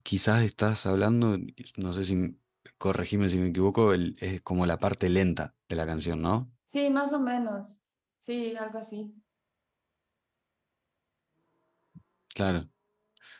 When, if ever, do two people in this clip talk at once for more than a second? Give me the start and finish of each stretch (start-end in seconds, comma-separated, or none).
none